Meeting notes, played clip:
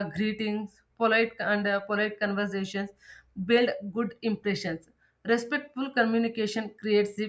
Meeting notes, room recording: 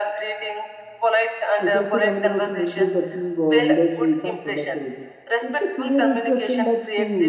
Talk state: both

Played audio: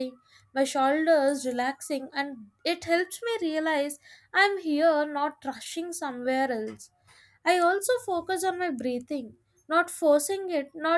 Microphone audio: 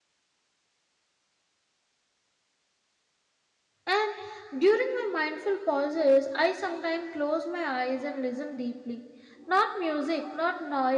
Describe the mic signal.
user only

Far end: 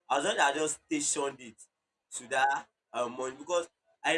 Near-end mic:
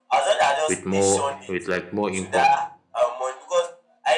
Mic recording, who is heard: both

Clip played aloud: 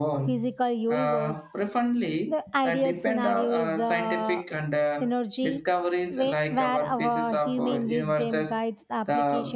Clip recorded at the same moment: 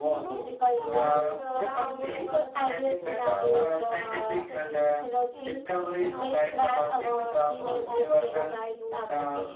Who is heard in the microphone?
both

